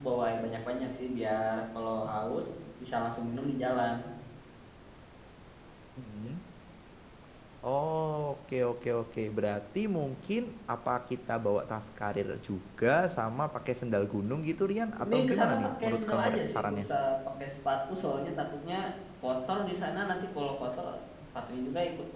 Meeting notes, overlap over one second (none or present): present